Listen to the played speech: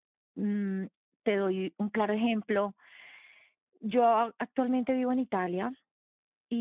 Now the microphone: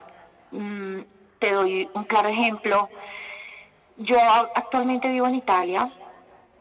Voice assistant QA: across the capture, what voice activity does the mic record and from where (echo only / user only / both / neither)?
echo only